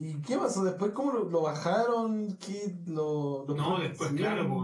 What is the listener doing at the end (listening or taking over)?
taking over